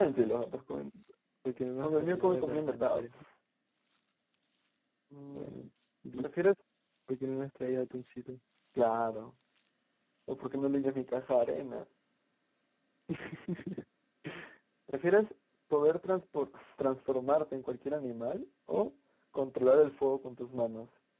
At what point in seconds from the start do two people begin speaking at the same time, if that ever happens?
1.8 s

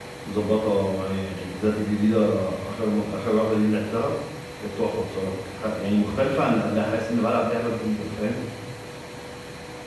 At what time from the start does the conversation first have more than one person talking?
none

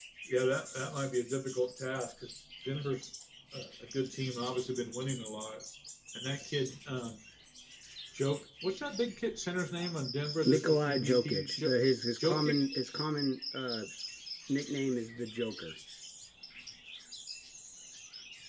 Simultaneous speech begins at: 10.4 s

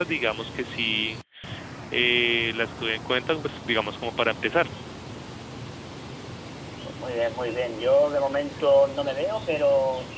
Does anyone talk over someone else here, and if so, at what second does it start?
none

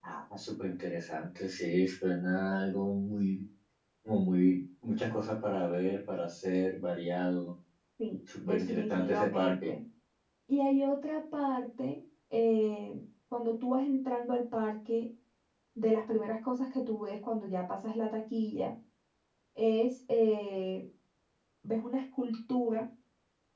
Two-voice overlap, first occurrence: 8.4 s

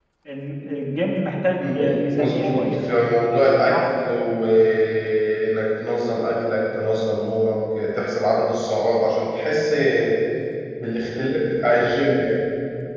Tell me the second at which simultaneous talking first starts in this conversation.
1.6 s

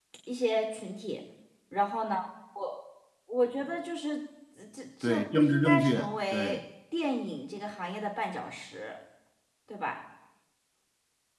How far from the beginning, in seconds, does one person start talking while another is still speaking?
5.0 s

